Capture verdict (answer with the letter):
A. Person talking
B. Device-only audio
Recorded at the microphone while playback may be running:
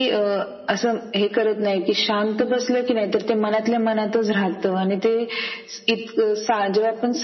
B